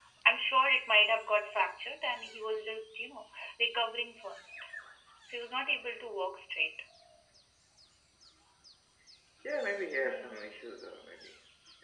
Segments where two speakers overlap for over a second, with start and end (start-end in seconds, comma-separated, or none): none